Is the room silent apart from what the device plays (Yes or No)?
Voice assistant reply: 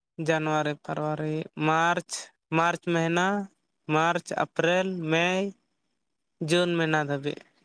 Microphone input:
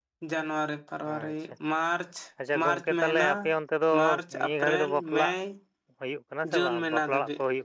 No